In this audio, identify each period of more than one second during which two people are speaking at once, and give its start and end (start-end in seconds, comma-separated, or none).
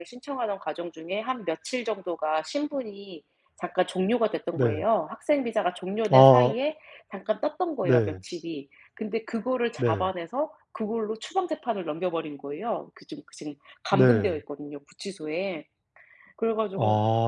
none